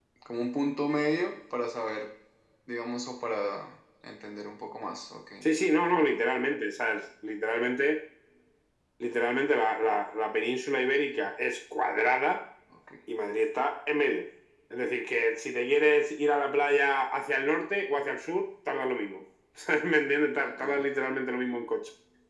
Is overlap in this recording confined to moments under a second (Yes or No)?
Yes